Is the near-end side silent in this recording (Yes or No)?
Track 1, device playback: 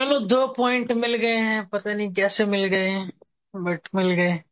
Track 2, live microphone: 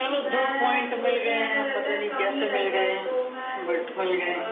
No